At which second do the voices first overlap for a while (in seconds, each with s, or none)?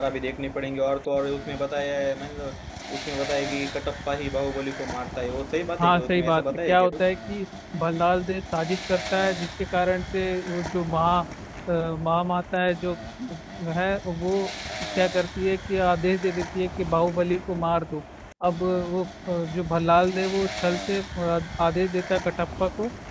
5.8 s